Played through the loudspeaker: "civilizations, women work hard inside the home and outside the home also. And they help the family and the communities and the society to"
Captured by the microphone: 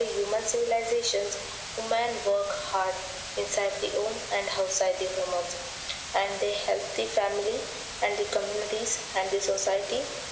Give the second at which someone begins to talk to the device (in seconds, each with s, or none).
none